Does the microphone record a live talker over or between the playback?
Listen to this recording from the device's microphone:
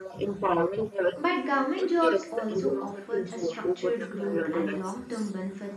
Yes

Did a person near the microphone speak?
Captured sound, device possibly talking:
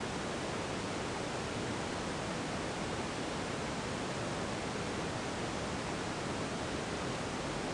No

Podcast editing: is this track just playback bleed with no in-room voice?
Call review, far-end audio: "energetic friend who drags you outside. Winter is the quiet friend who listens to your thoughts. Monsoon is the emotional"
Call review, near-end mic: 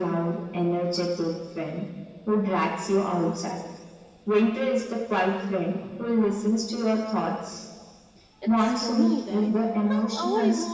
No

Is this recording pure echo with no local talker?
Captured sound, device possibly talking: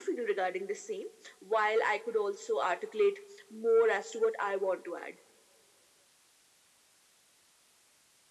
Yes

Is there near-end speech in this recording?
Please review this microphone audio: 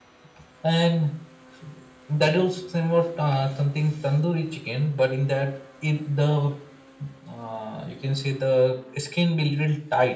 No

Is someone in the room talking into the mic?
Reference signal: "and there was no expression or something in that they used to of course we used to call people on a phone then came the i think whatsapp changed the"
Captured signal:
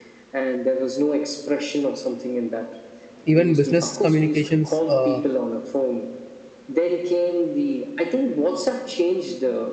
Yes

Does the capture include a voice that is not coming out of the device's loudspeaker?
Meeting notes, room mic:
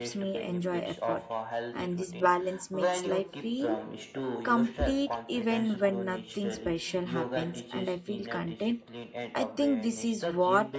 Yes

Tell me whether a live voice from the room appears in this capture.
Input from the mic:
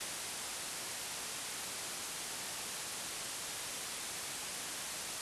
No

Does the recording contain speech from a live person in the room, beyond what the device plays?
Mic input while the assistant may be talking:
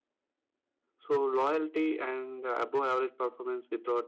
Yes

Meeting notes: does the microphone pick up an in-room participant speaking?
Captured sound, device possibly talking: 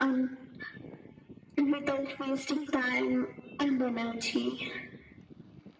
No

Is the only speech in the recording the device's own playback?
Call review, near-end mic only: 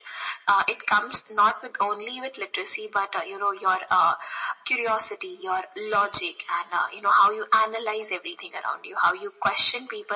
Yes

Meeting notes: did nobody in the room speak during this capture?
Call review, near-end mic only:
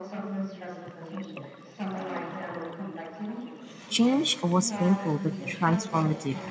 No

